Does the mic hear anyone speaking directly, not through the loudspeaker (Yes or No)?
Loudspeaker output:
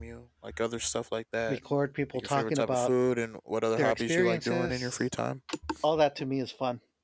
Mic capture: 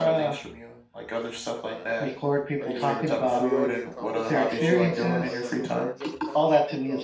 Yes